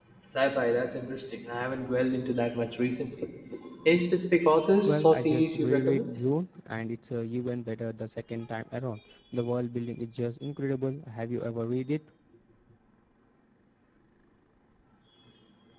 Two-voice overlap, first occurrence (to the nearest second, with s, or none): 5 s